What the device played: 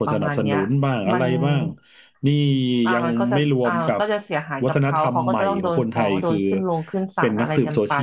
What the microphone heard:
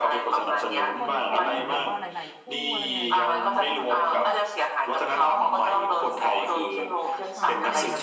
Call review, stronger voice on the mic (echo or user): echo